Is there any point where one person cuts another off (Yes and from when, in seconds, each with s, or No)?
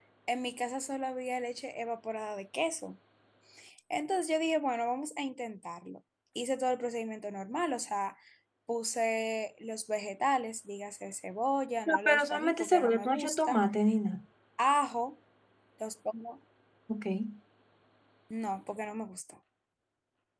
Yes, from 11.9 s